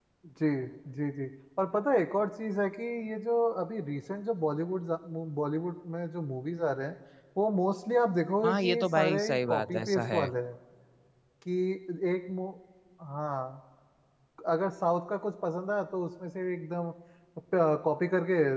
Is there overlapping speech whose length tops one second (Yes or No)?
Yes